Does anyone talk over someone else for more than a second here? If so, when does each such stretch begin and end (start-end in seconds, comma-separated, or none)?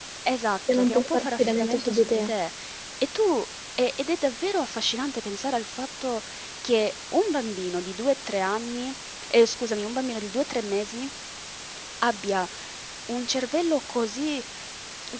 0.7-2.3